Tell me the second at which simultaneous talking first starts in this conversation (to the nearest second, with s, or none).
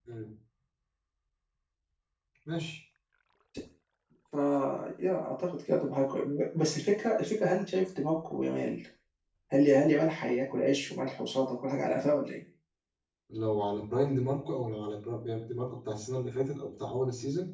none